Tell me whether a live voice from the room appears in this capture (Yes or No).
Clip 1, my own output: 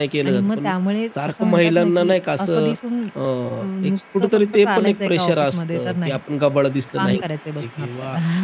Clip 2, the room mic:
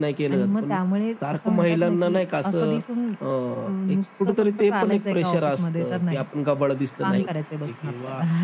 No